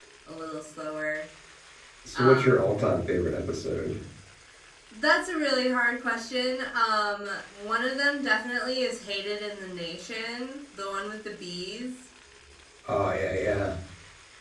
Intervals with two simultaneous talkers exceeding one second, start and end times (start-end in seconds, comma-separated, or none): none